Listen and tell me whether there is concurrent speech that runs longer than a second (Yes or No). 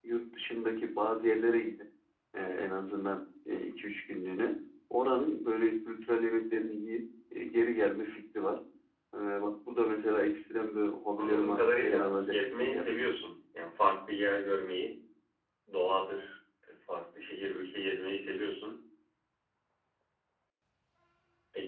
Yes